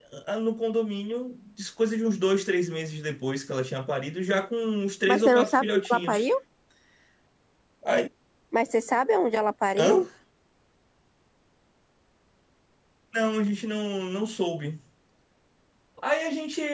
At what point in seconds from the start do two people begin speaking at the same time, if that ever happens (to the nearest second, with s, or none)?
5 s